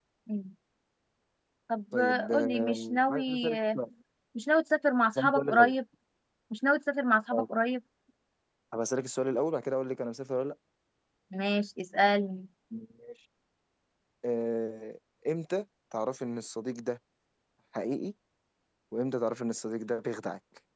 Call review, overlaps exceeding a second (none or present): present